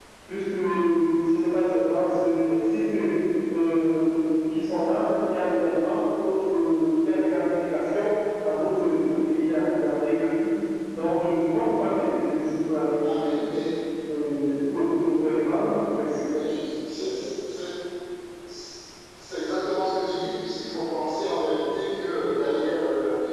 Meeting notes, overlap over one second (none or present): none